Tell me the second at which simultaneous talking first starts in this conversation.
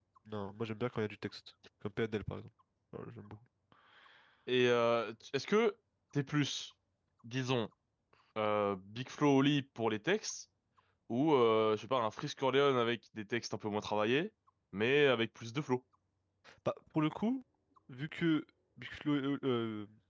none

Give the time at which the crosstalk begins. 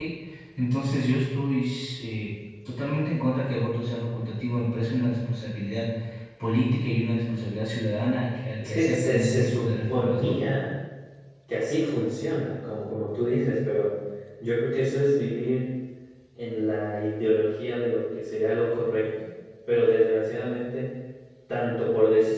8.6 s

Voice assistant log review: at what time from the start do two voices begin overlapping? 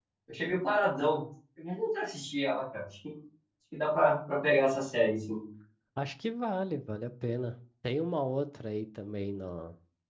none

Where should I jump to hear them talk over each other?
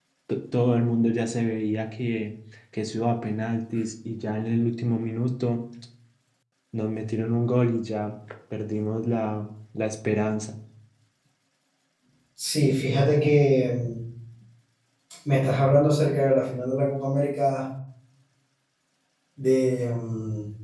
none

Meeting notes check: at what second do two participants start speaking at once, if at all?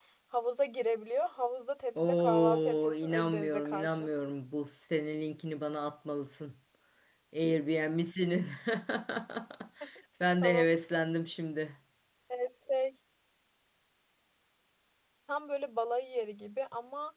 2.0 s

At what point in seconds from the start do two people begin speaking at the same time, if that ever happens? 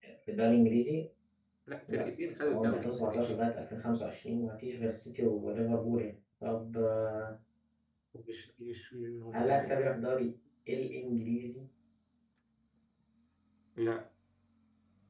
1.9 s

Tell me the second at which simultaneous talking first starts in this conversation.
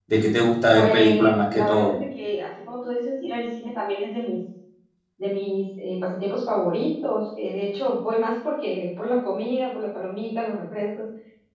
0.8 s

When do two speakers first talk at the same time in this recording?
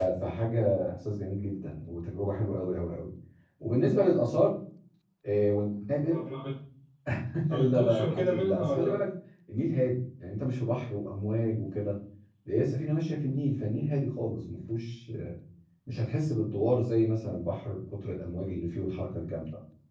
7.5 s

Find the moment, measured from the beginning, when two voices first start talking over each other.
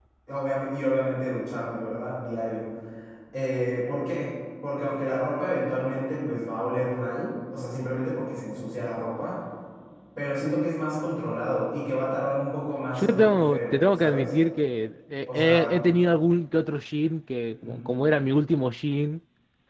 13.0 s

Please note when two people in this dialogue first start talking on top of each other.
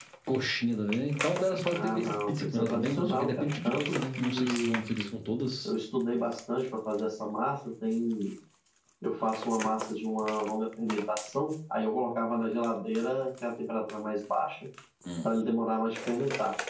1.7 s

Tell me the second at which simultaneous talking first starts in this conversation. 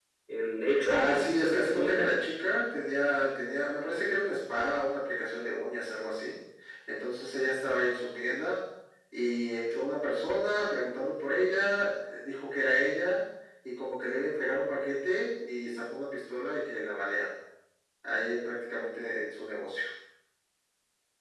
0.8 s

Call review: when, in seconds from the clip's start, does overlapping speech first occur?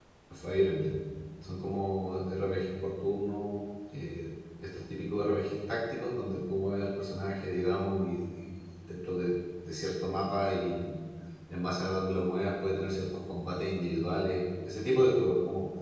none

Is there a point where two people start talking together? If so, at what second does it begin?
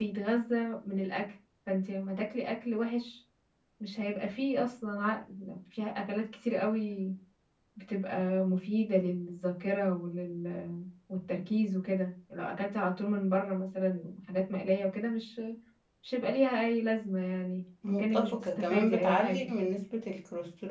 17.8 s

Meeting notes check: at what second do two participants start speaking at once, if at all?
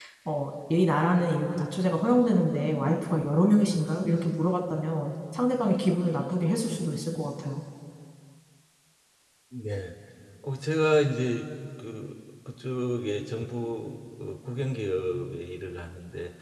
none

